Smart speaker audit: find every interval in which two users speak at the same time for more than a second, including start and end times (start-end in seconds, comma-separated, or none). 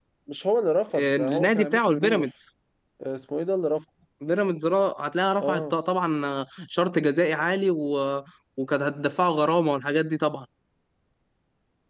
1.0-2.2